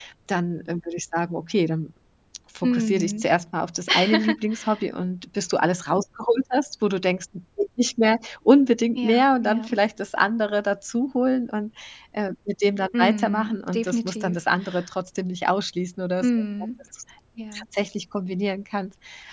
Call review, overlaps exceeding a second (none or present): present